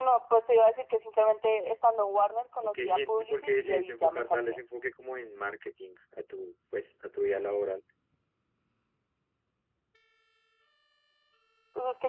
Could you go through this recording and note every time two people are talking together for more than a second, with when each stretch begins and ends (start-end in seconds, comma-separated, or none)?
2.6-4.6